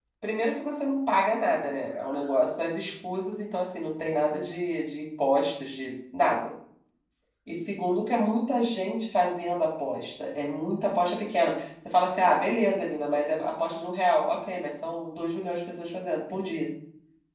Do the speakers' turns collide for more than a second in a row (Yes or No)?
No